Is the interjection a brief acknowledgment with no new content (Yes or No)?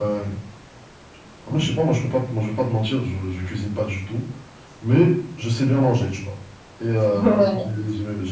Yes